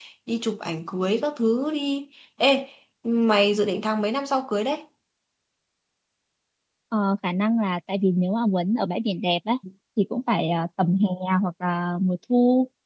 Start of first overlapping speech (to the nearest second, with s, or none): none